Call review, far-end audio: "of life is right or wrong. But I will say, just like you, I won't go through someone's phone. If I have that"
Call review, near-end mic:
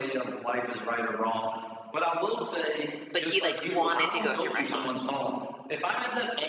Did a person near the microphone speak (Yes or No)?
Yes